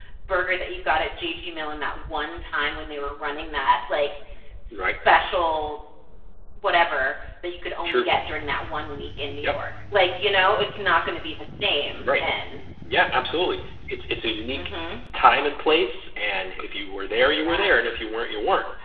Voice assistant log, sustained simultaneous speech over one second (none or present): none